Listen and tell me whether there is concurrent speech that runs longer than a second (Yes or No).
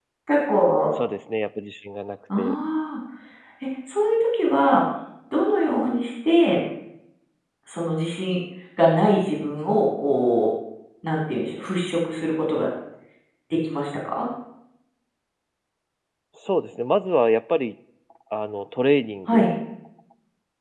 No